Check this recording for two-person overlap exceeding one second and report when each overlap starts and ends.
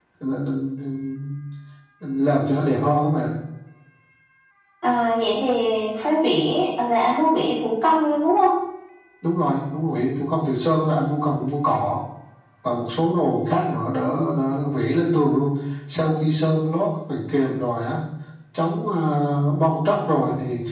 none

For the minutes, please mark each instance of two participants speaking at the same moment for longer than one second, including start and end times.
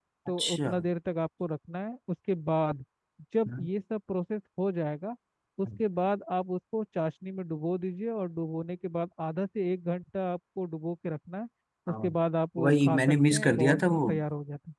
12.6-14.0

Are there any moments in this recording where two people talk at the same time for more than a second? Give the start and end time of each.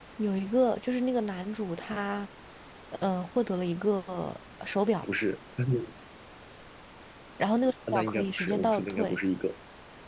7.9-9.2

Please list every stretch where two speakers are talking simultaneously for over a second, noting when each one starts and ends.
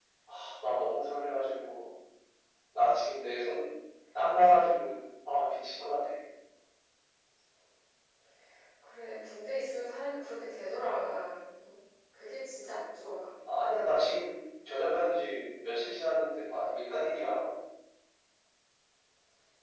none

